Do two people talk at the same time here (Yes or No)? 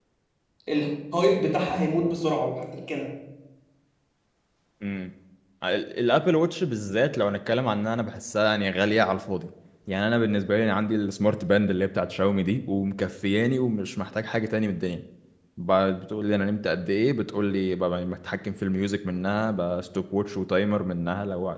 No